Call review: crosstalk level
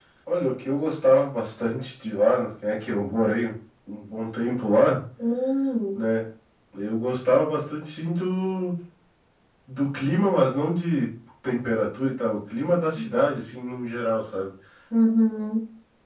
none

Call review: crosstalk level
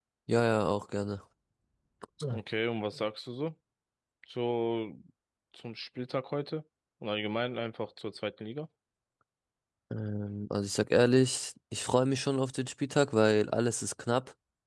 none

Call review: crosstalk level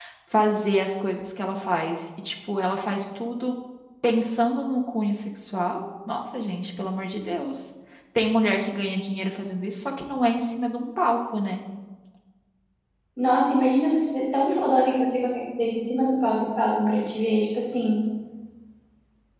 none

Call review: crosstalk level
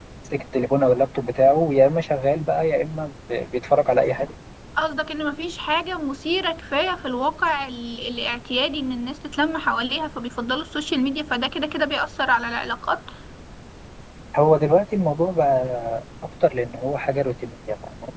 none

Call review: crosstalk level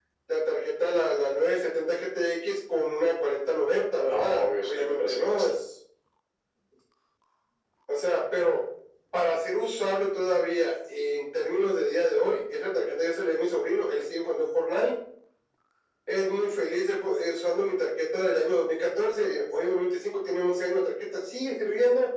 present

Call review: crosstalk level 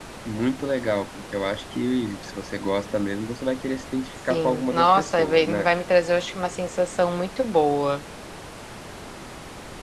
present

